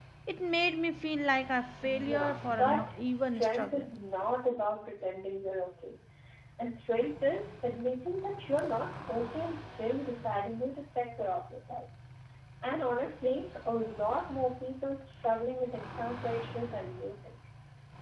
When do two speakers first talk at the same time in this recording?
1.8 s

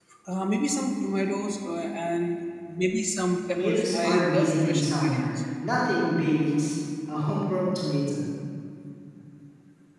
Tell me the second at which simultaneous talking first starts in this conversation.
3.6 s

